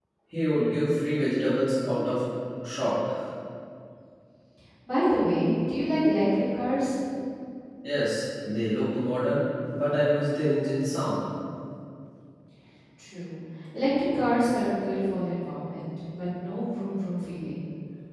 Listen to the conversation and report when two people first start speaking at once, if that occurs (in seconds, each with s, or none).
none